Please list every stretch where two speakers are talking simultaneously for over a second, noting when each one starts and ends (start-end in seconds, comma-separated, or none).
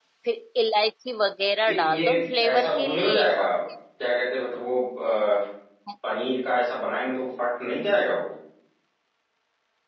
1.7-3.5